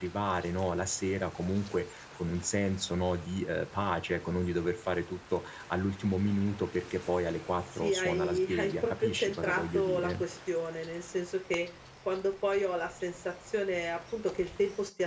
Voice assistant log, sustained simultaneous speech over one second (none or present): present